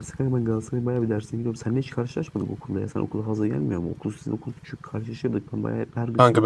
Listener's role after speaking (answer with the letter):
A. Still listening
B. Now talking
B